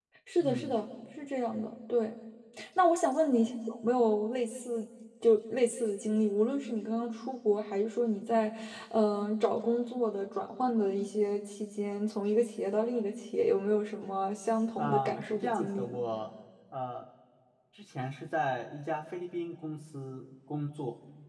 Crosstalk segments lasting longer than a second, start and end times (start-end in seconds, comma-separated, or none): 14.8-16.0